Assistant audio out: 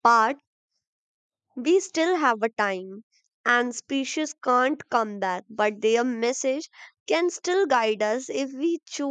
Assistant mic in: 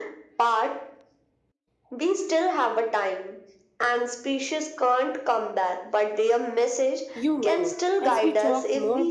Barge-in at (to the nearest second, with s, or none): 7 s